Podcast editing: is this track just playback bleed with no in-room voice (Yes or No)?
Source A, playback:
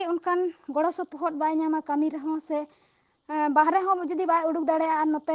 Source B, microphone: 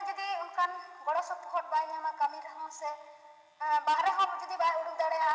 Yes